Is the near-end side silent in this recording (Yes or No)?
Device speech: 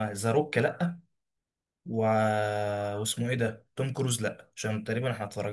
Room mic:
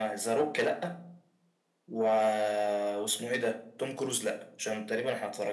Yes